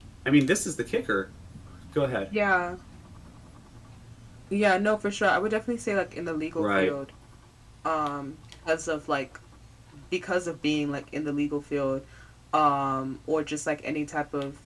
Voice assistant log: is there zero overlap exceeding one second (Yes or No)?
Yes